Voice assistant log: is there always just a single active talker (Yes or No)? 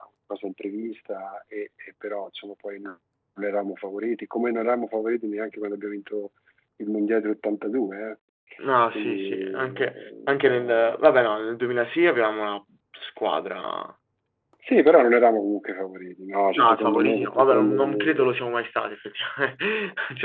No